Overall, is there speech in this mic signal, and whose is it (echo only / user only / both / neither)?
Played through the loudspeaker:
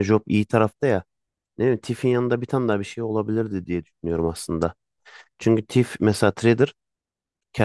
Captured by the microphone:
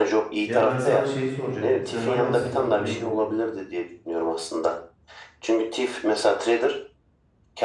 both